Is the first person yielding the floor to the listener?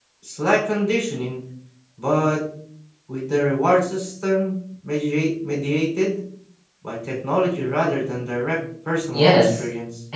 Yes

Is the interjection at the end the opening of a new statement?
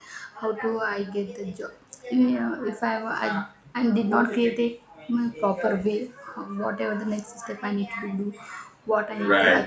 No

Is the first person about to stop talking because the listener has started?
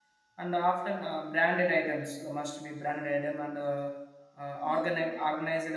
No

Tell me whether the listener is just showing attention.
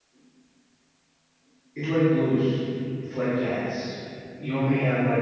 Yes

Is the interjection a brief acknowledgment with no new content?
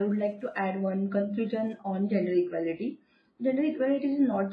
Yes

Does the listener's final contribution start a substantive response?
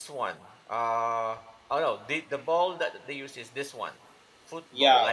Yes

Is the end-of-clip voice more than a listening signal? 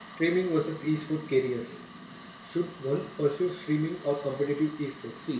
Yes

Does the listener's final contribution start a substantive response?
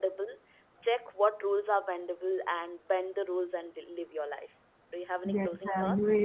Yes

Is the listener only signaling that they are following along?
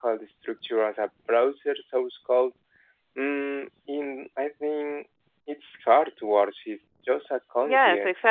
No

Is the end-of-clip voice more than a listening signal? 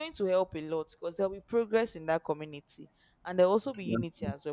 No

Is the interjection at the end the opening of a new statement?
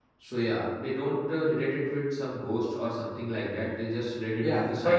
Yes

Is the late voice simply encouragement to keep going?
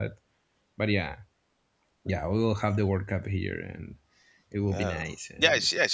No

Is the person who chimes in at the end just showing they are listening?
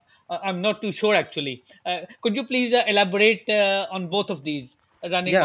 No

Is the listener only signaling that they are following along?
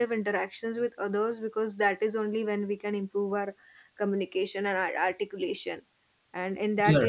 Yes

